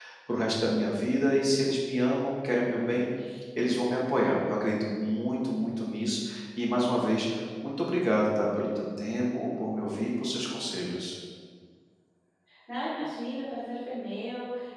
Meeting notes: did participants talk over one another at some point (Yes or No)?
No